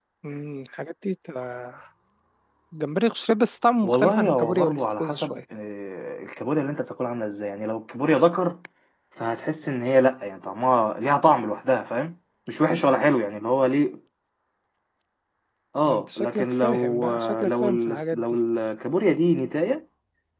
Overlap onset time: 3.8 s

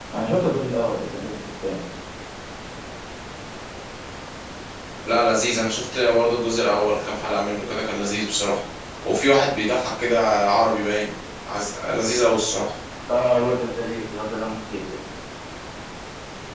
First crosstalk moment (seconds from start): none

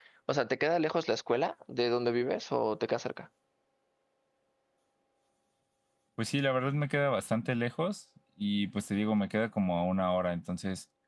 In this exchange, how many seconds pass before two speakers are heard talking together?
none

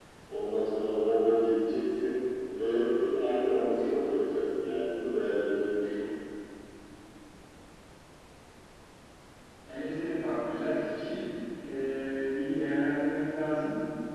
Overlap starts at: none

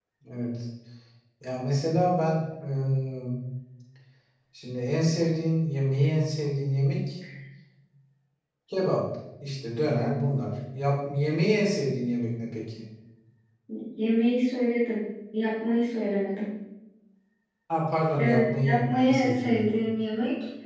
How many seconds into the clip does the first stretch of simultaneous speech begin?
18.2 s

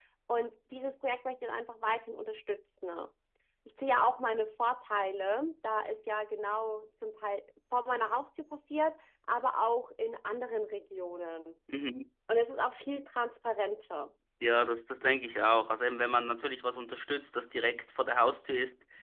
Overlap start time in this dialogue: none

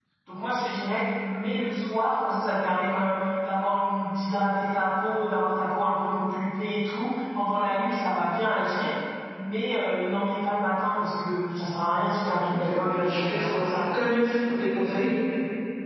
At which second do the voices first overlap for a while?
12.5 s

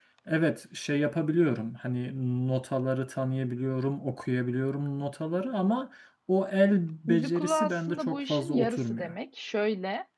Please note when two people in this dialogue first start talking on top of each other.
7.1 s

